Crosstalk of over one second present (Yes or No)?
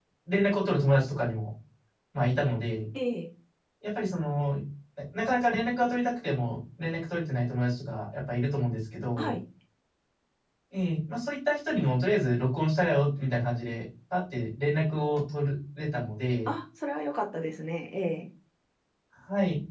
No